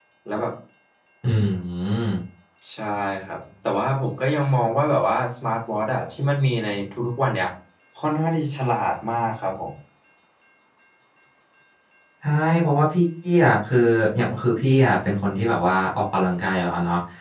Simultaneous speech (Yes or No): No